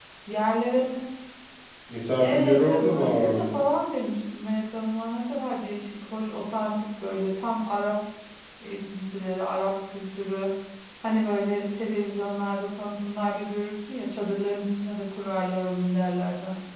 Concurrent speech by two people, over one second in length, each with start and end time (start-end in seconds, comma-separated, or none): 2.2-3.6